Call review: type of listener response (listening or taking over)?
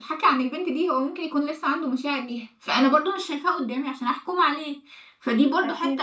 listening